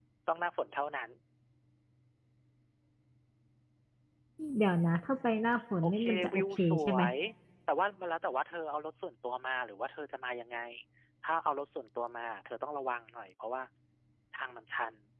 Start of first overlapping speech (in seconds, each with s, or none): 5.8 s